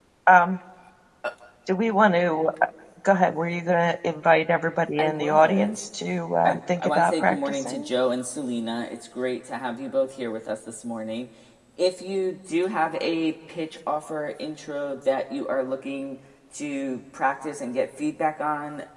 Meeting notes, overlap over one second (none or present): present